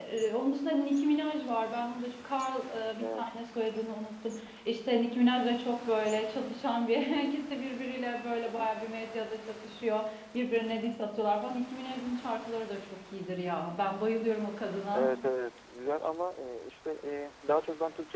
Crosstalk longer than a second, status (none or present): none